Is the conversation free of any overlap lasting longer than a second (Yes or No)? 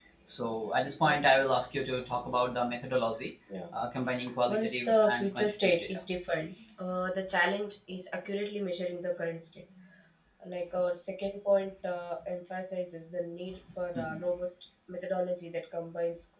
No